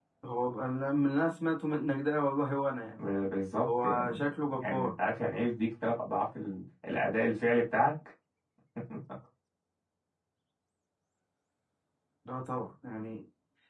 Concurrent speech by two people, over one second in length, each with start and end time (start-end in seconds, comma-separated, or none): 3.6-4.9